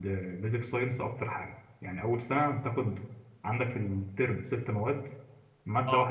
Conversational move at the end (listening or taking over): listening